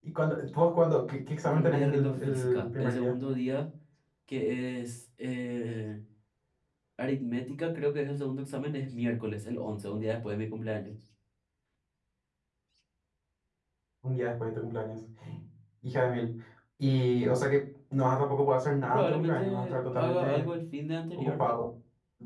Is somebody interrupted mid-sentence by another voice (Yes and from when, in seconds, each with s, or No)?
Yes, from 1.4 s